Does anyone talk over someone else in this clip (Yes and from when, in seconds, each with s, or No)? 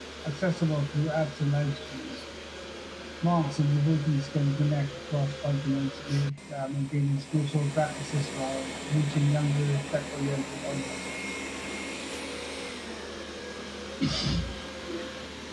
No